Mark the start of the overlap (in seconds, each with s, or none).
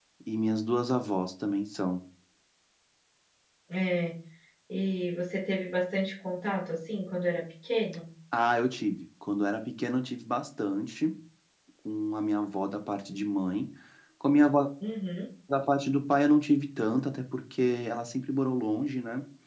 none